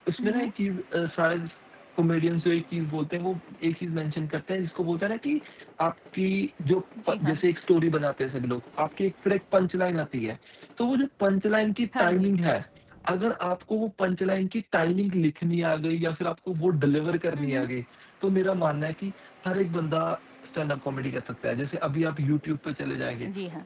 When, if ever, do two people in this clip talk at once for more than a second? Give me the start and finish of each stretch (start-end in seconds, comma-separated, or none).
none